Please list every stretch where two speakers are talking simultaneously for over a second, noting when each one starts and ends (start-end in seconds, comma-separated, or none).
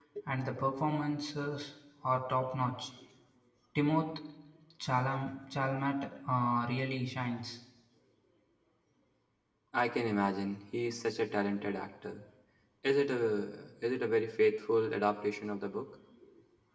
none